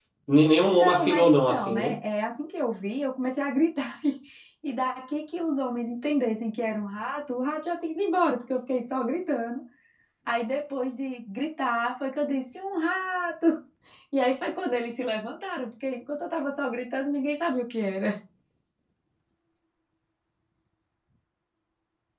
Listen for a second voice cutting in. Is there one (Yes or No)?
Yes